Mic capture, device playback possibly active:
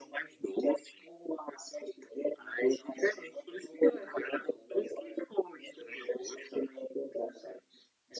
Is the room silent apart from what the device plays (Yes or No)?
Yes